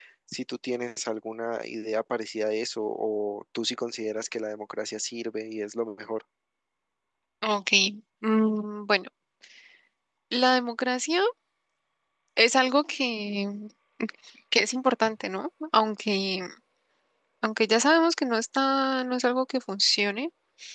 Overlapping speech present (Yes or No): No